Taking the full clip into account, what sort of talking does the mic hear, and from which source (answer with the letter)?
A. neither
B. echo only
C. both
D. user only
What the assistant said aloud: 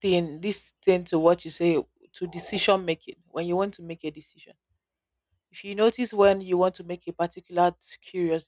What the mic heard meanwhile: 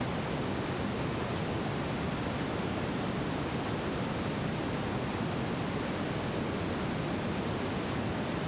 A